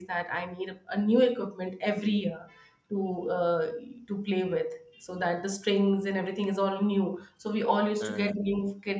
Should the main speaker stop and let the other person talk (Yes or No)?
No